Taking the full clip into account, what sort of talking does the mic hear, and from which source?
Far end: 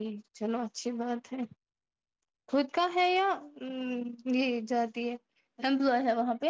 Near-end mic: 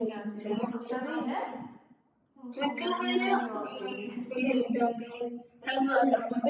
both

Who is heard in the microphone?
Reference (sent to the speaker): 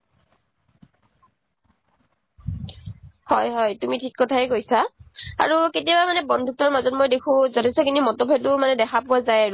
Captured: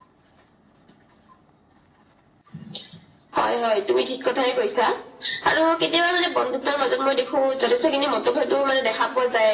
echo only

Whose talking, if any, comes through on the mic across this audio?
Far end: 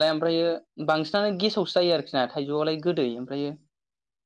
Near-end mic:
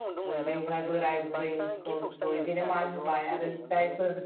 both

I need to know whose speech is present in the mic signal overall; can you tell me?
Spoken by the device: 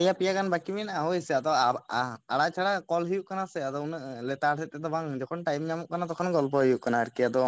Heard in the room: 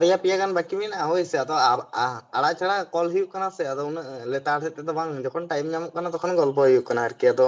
echo only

